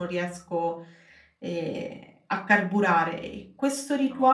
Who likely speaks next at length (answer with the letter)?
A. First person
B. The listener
A